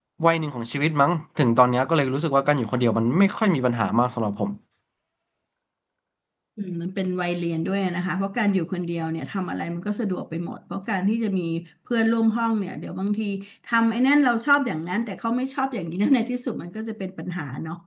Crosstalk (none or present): none